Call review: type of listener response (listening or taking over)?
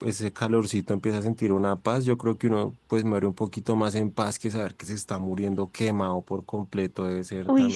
taking over